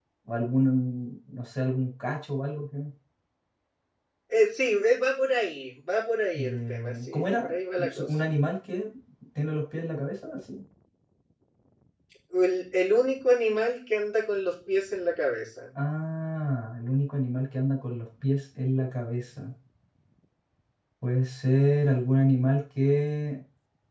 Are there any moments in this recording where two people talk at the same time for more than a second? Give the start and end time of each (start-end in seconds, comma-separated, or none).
6.3-8.1